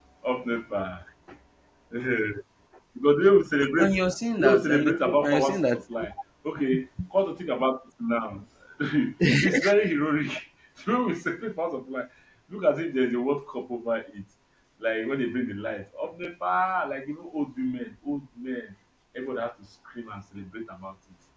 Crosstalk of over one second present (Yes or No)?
Yes